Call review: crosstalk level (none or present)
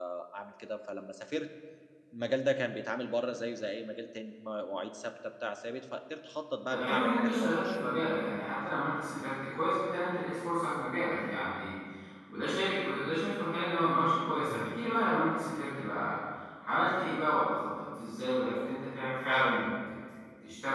present